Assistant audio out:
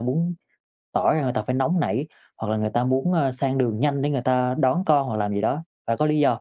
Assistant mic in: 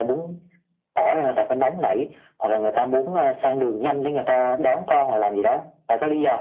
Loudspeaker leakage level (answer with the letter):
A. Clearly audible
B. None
A